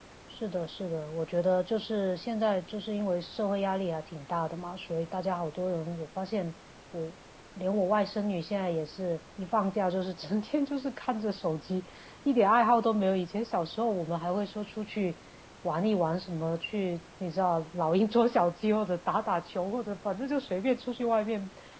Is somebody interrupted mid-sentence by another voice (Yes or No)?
No